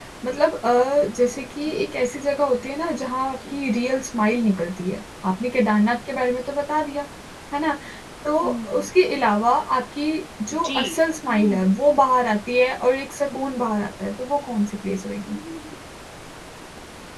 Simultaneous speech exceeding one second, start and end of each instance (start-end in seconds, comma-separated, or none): none